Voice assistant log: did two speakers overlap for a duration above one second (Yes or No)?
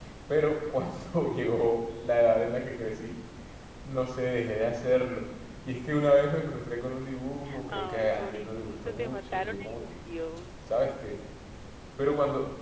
Yes